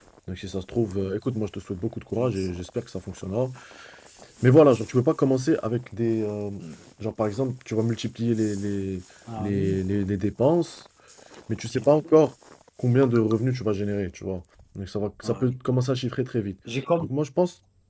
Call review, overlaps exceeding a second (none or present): none